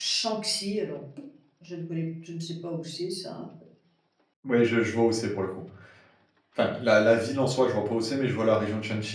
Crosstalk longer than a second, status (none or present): none